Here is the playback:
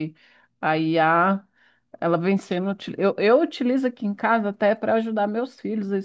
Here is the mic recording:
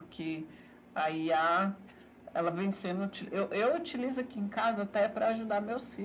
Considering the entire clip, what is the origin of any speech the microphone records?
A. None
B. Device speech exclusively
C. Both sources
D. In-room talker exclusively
B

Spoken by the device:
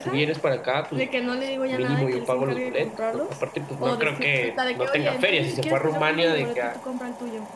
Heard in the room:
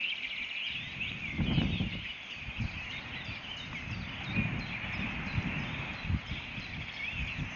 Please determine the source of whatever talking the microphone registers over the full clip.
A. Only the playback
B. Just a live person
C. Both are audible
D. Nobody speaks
D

